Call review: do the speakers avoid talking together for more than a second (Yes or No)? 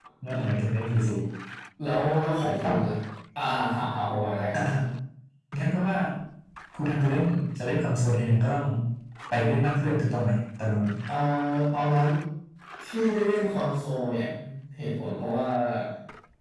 Yes